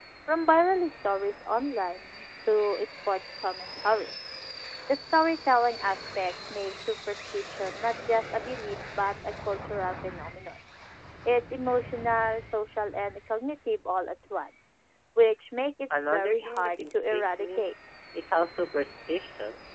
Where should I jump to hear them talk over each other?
16 s

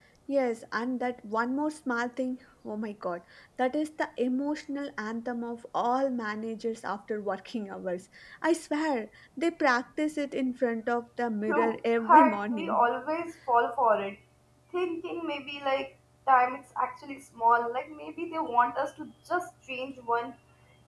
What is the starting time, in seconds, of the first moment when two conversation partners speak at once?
11 s

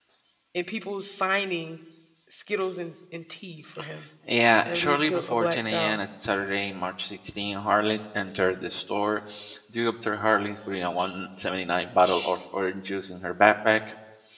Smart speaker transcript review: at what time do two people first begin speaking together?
5 s

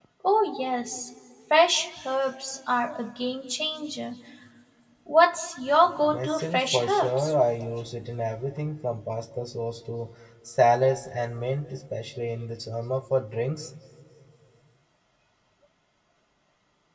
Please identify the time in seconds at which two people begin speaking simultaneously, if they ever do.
6 s

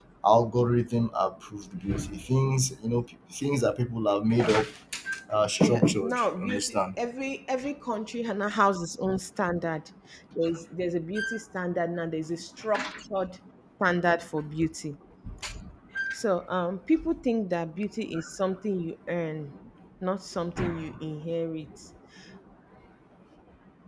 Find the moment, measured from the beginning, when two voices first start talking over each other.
6 s

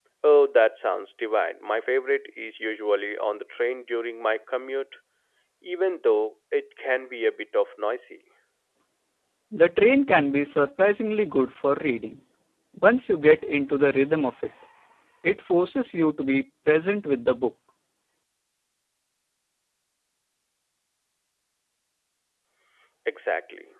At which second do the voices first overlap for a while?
none

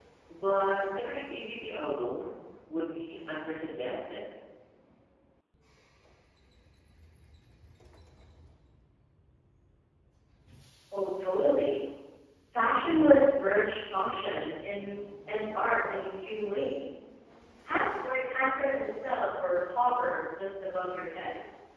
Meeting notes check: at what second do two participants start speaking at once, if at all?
none

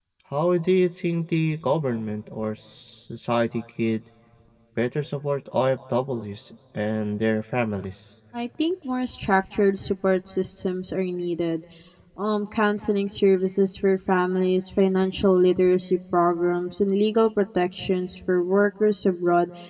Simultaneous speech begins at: none

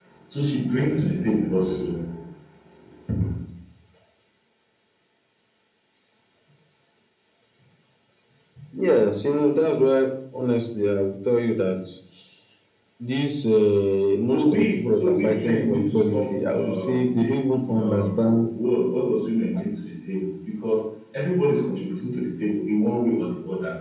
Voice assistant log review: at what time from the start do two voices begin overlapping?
14 s

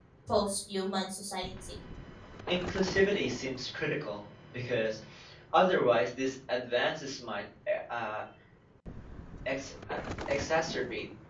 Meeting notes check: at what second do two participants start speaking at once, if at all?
none

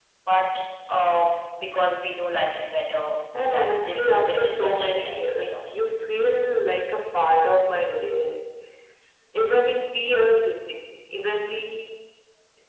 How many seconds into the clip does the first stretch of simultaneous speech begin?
3 s

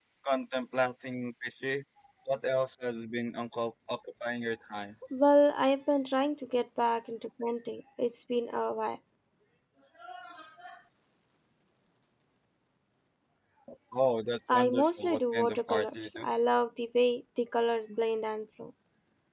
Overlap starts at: 15 s

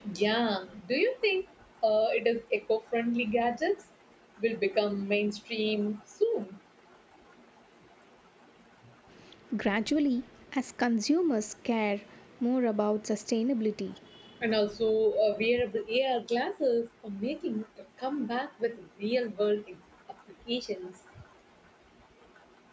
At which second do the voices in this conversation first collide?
none

